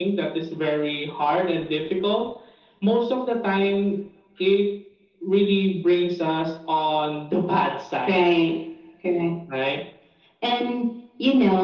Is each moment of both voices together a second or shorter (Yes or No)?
Yes